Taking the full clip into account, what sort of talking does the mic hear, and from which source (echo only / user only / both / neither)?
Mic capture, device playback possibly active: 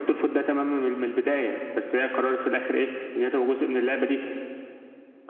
echo only